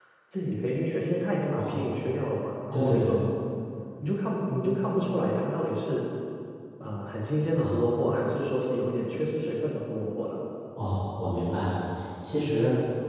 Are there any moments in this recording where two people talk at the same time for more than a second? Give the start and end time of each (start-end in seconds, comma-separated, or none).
none